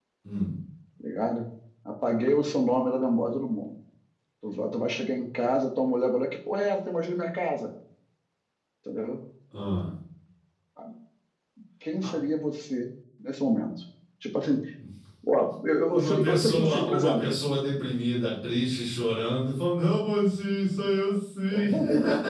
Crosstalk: present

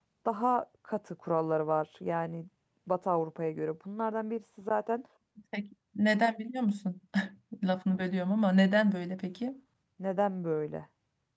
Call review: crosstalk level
none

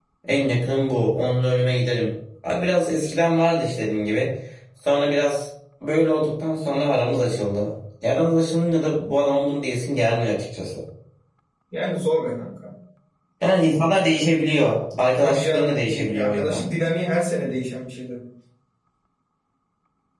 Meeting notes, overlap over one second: present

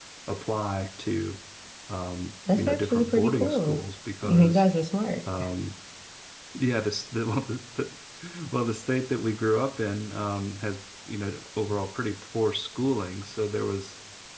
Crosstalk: present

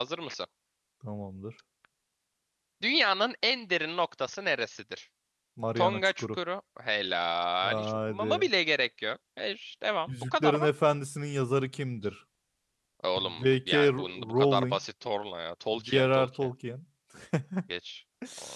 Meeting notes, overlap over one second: present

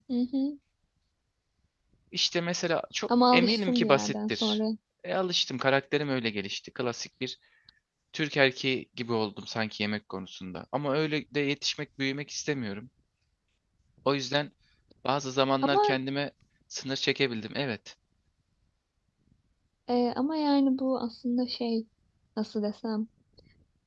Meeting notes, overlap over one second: present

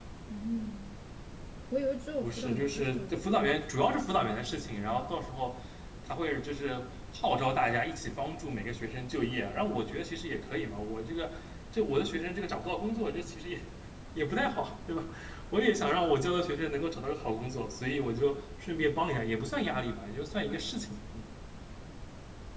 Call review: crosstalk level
present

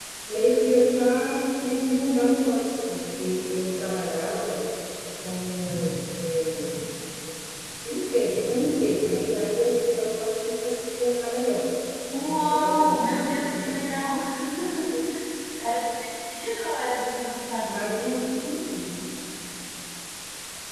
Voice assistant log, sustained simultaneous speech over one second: present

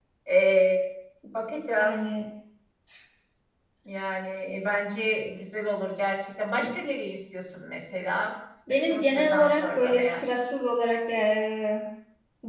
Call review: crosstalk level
present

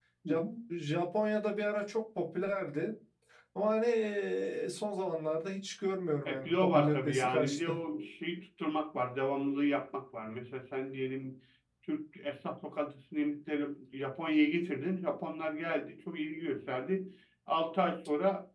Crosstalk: present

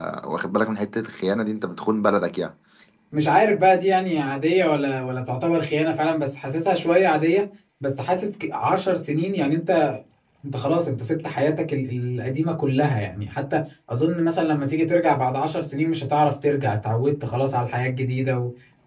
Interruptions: none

